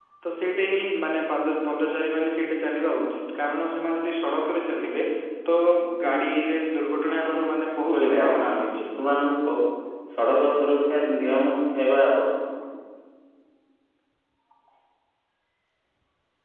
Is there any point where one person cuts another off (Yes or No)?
Yes